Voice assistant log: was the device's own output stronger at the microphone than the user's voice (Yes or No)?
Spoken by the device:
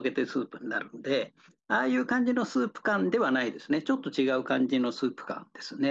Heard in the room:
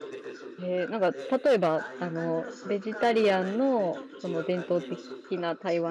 No